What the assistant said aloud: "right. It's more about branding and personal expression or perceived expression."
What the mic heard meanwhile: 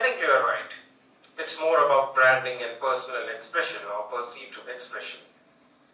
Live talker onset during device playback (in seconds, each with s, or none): none